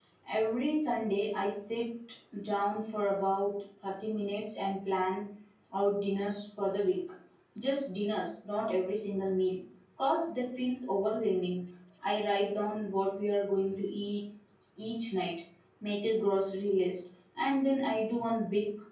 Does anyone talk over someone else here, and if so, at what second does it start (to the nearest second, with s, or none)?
none